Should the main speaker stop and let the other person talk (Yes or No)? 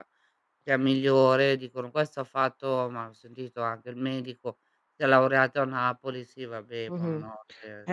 Yes